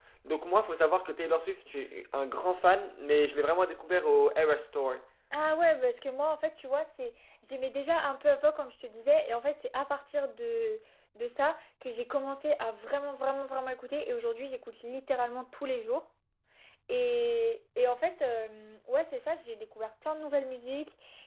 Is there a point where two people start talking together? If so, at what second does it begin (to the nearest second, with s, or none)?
none